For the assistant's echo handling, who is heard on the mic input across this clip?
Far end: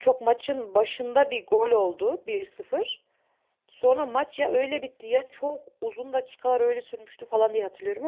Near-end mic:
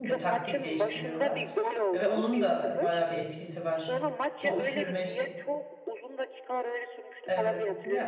both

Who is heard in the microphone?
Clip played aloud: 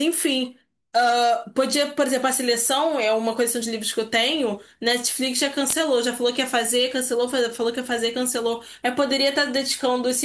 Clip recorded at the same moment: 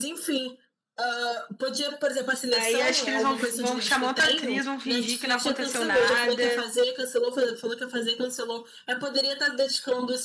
both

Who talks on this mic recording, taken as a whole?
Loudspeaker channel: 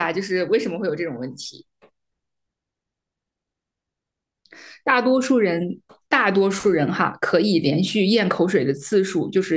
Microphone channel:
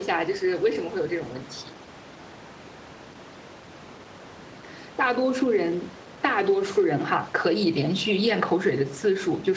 echo only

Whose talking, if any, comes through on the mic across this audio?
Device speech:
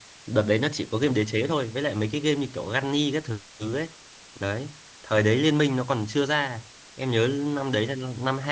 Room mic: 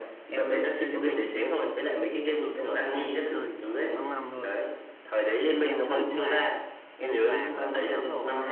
both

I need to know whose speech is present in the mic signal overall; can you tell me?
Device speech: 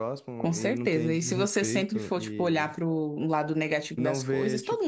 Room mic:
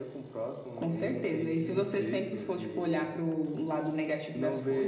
echo only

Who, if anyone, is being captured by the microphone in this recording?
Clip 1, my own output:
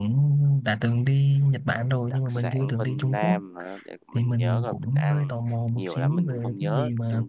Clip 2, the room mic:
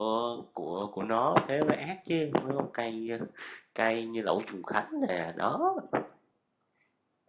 user only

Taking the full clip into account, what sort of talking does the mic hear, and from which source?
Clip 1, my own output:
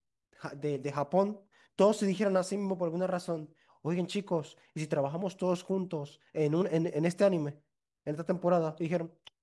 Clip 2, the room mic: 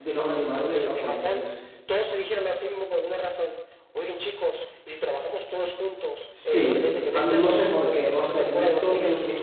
both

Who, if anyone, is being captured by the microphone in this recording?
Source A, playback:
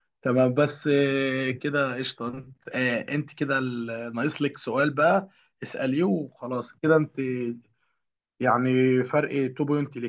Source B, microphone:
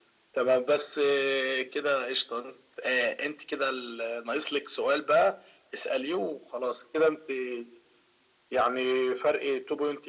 echo only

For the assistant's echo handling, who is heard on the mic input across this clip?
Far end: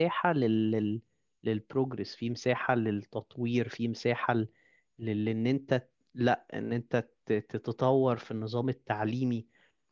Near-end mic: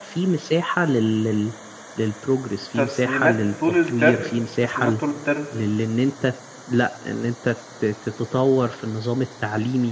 both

